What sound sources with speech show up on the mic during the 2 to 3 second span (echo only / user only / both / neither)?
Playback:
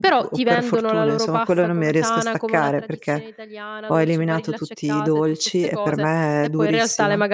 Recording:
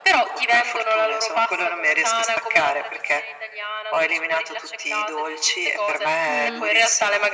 echo only